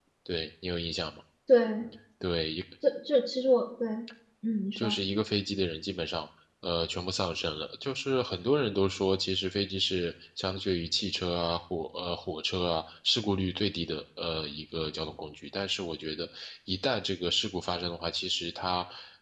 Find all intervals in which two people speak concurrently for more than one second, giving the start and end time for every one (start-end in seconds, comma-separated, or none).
none